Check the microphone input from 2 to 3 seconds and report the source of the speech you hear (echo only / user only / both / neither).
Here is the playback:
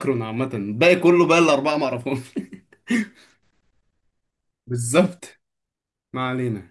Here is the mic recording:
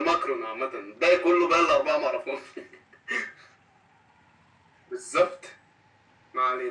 echo only